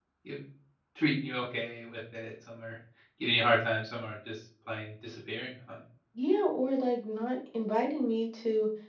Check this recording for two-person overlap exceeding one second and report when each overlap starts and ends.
none

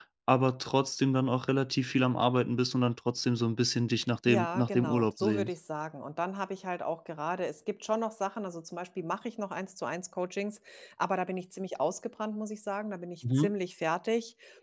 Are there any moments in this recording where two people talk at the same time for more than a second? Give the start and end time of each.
4.3-5.5

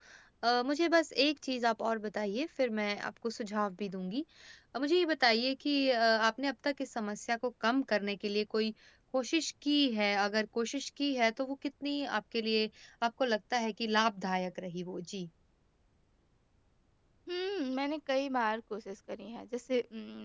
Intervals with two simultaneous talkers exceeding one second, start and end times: none

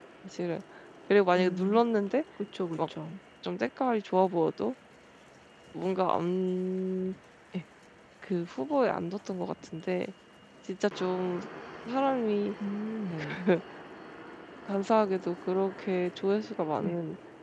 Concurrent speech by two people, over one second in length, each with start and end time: none

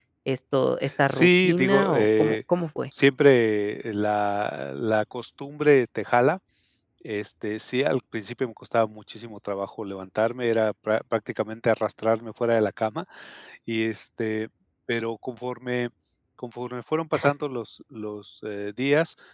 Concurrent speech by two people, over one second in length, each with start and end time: 1.1-2.4

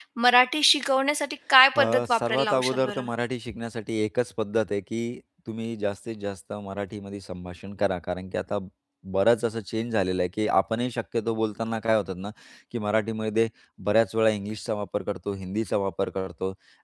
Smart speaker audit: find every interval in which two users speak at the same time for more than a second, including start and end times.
1.8-3.0

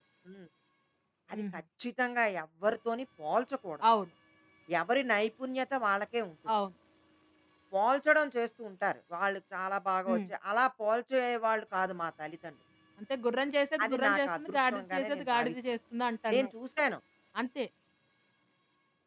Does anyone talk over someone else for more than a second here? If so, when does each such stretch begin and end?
13.8-15.5

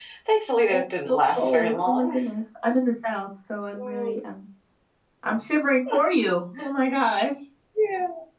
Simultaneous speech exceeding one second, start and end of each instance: 0.7-2.2

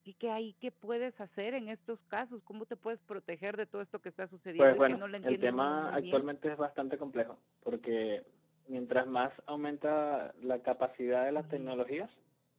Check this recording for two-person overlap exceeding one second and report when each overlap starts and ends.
4.6-6.3

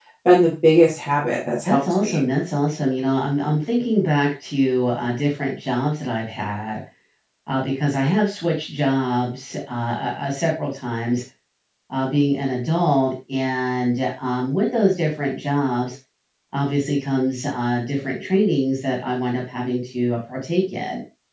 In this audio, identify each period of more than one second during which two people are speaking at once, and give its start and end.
none

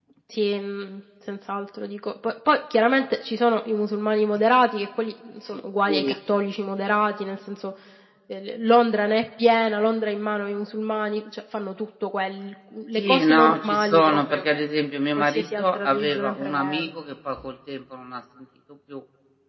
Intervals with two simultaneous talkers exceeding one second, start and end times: 13.0-14.6, 15.2-16.9

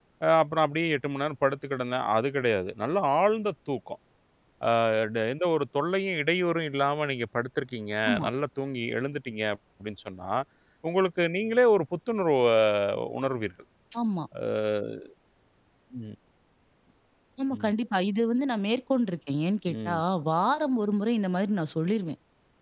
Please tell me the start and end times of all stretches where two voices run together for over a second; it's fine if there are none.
none

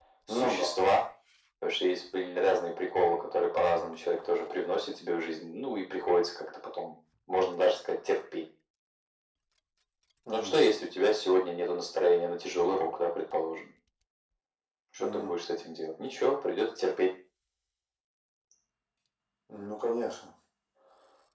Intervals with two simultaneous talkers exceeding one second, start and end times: none

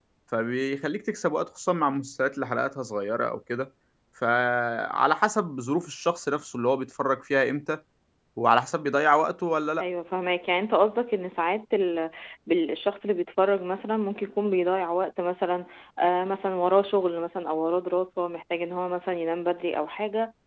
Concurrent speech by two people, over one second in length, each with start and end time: none

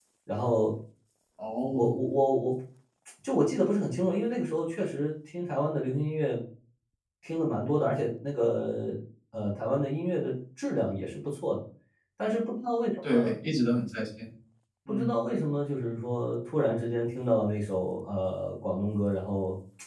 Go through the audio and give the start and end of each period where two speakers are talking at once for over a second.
none

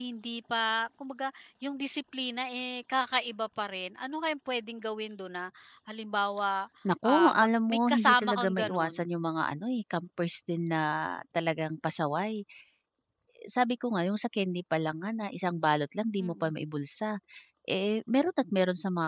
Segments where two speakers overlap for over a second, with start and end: 7.0-8.9

